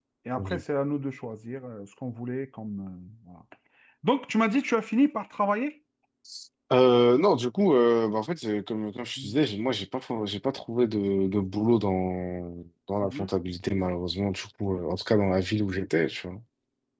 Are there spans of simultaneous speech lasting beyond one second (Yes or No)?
No